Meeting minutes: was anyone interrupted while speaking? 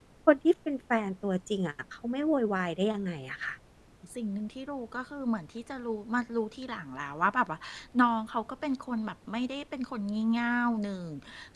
No

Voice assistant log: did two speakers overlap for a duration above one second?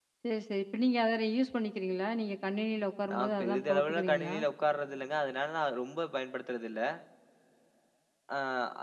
Yes, from 3.1 s

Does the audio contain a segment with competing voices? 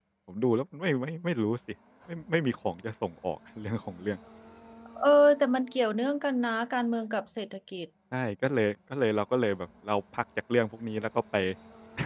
No

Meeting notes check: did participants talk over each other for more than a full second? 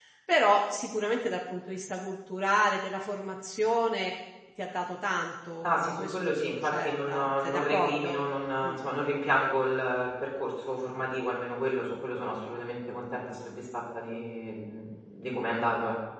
Yes, from 5.6 s

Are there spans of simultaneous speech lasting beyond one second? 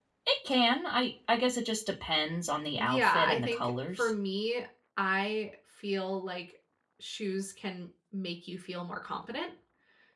Yes, from 2.8 s

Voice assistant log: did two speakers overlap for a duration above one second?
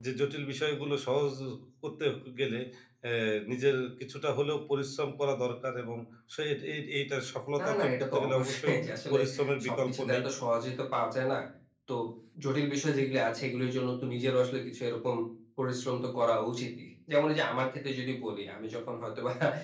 Yes, from 7.6 s

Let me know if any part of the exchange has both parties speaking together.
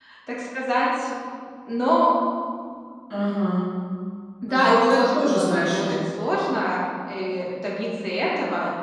Yes, from 4.5 s

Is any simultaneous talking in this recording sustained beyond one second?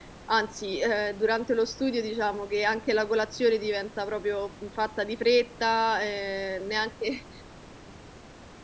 No

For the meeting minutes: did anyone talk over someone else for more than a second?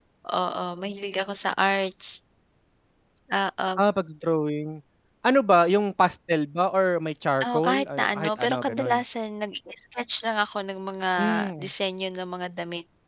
Yes, from 7.4 s

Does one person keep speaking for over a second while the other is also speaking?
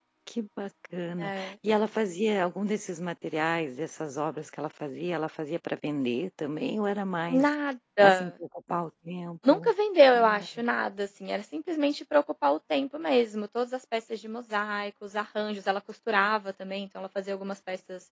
No

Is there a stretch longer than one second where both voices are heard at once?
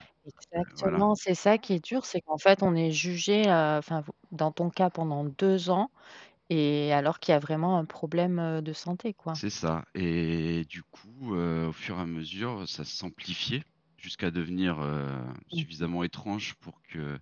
No

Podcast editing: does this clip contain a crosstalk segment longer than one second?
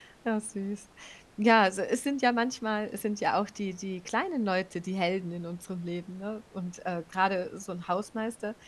No

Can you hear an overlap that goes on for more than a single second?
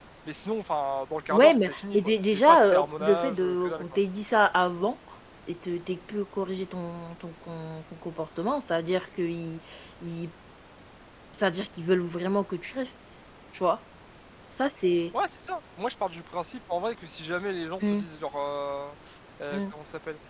Yes, from 1.3 s

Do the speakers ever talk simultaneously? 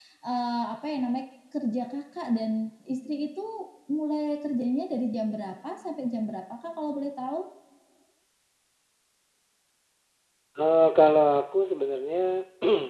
No

